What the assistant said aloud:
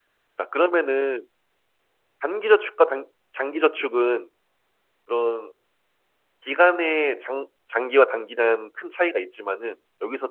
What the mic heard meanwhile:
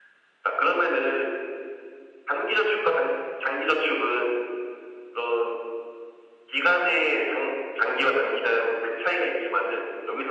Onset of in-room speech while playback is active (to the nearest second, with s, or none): none